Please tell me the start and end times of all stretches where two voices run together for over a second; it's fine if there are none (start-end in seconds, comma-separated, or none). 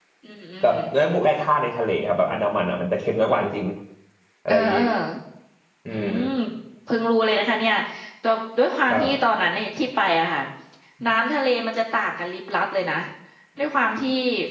none